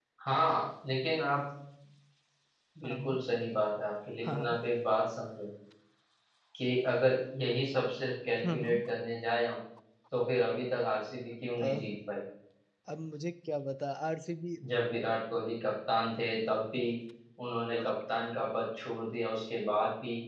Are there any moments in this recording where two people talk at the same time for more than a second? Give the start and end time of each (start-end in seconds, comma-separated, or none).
none